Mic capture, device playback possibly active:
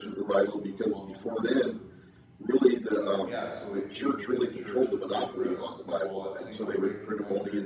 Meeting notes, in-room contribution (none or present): present